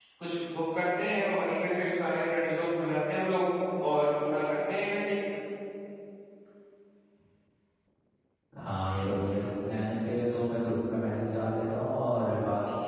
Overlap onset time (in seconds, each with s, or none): none